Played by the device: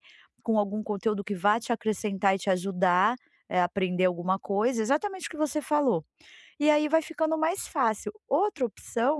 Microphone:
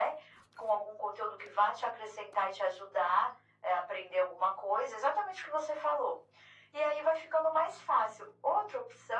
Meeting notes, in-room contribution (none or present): none